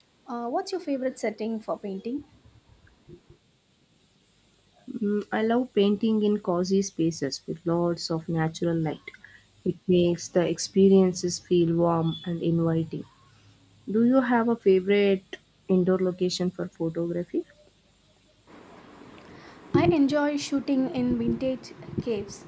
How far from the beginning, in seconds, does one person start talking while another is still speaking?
none

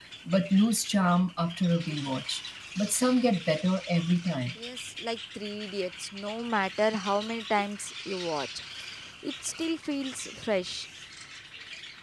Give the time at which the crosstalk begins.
none

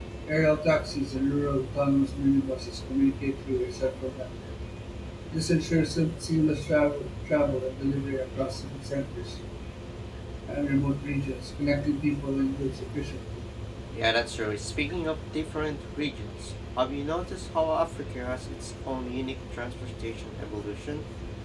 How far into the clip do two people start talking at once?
none

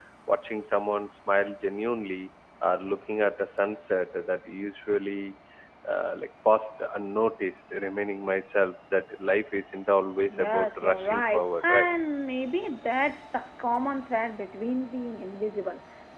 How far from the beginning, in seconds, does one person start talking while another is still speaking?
10 s

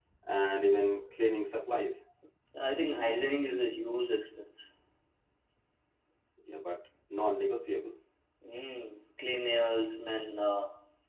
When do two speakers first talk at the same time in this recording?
none

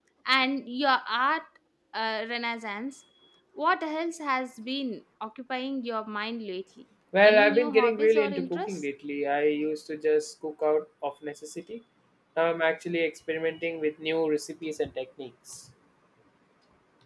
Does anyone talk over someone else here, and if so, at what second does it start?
7 s

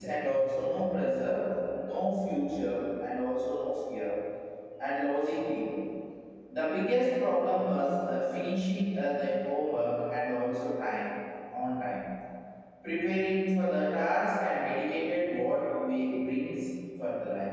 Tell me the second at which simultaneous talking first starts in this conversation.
none

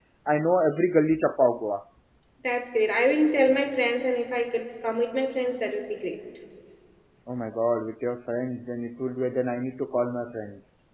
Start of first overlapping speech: none

